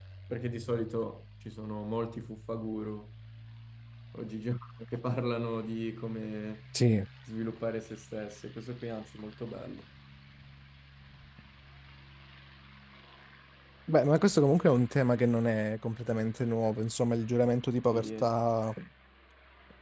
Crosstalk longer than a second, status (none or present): none